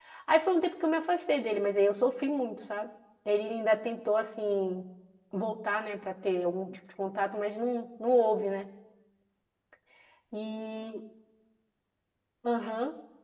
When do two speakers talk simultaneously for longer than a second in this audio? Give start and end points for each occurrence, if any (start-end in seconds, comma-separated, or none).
none